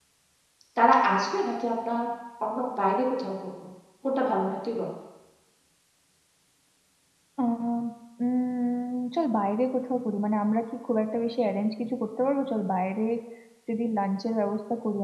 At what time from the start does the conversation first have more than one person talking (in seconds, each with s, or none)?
none